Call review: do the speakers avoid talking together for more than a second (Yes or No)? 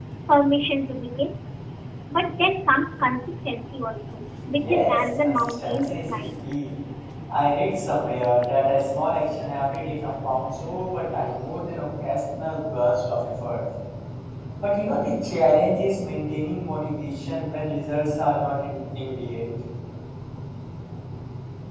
No